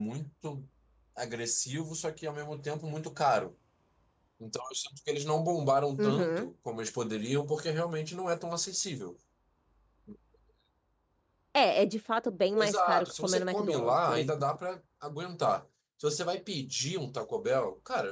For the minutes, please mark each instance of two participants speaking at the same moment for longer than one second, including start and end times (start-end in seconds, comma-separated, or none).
12.6-14.3